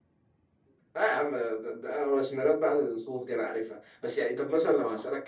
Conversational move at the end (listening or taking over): listening